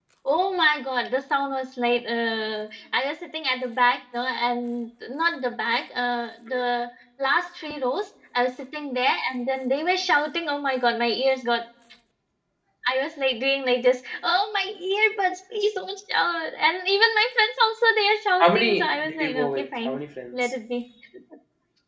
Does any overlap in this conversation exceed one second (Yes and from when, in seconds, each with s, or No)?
Yes, from 18.4 s